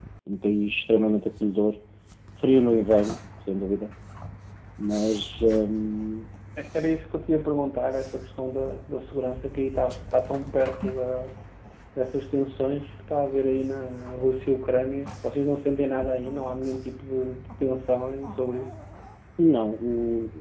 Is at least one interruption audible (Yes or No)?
No